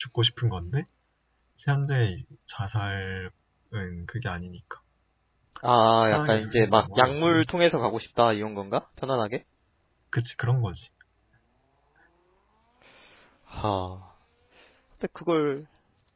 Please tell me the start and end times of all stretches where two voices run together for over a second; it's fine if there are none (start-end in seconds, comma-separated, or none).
6.1-7.4